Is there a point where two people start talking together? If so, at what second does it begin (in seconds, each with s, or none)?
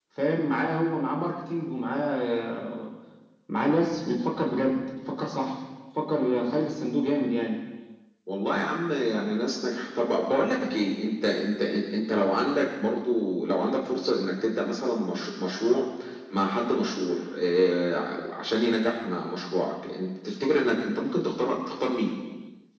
none